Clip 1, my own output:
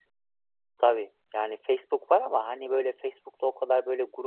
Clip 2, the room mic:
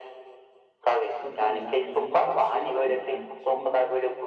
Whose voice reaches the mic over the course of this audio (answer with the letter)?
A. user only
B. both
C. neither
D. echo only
B